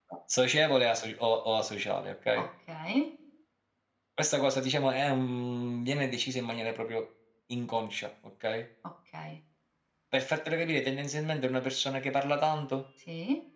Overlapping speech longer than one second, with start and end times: none

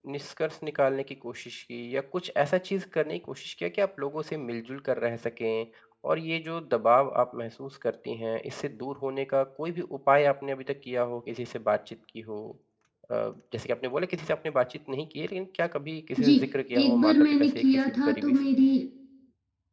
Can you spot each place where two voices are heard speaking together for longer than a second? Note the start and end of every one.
16.8-18.3

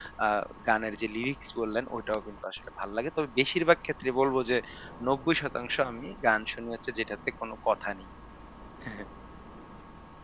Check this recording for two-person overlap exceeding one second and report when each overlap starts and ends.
none

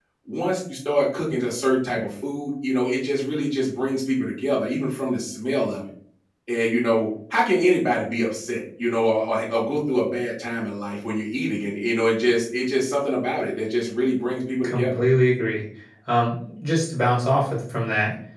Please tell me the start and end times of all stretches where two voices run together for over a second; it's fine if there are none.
none

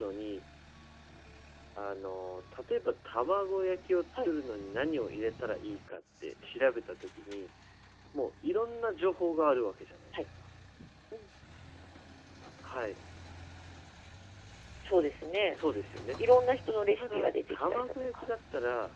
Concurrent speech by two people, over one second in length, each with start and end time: 17.0-18.3

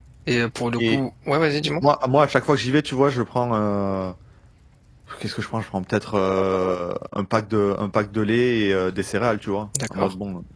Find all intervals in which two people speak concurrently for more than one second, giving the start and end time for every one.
none

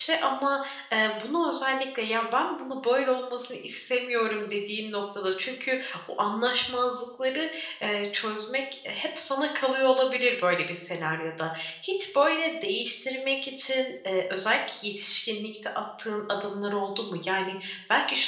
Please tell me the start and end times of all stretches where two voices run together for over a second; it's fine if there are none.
none

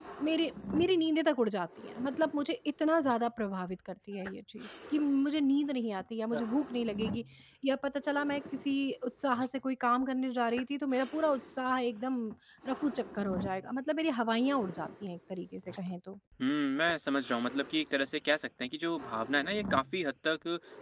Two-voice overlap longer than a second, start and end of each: none

